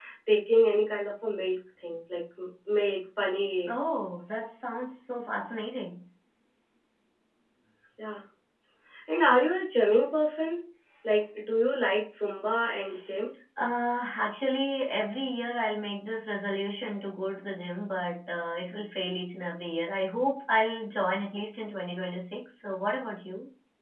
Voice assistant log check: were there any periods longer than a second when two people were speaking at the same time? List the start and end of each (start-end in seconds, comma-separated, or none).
none